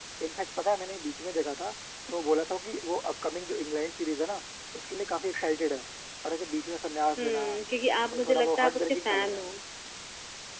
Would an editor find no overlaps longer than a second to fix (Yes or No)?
No